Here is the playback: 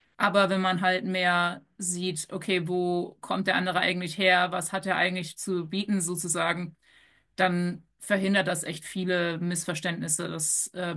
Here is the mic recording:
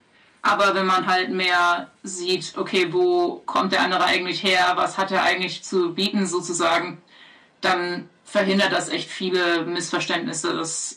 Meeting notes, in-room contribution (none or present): none